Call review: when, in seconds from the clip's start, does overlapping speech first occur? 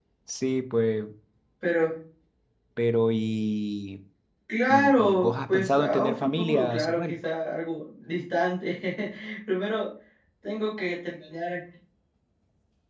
5 s

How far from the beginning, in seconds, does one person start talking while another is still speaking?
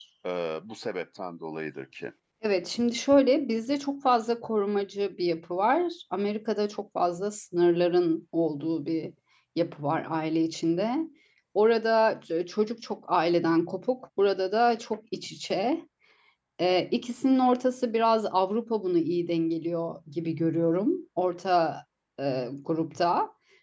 none

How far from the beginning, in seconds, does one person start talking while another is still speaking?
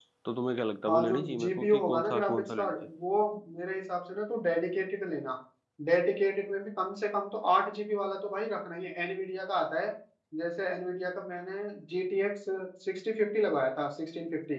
1 s

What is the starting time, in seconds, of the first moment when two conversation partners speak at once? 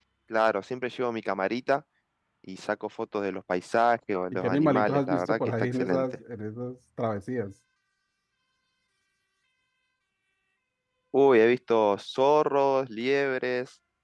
4 s

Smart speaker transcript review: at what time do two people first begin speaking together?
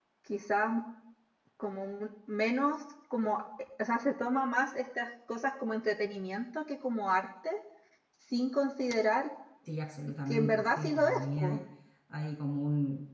10 s

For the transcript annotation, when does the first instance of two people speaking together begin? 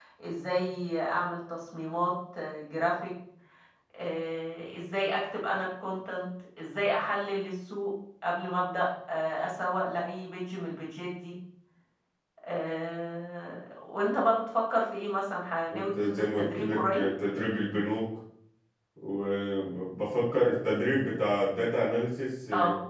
16 s

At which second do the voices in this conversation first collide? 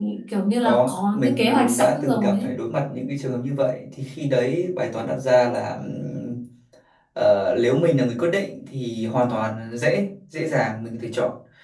1 s

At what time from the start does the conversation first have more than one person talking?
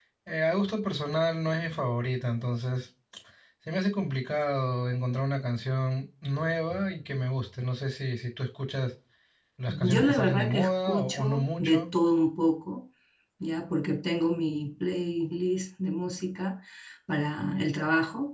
10 s

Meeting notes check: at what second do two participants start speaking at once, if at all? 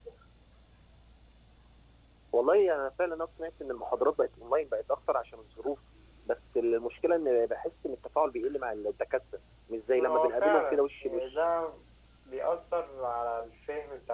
10 s

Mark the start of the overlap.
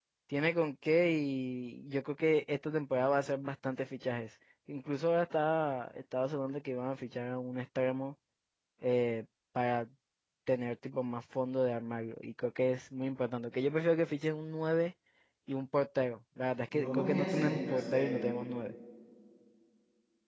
17 s

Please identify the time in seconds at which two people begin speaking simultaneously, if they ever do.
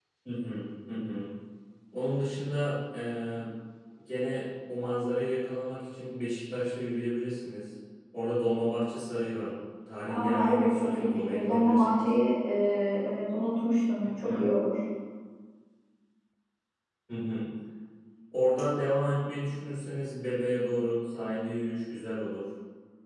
10 s

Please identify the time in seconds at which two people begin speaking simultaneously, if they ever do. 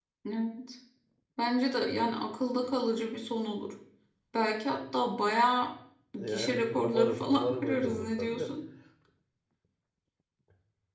6 s

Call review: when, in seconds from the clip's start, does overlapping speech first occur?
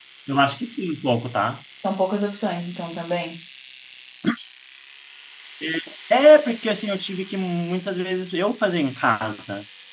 none

